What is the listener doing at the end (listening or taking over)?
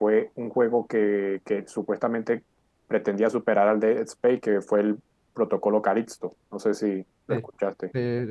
taking over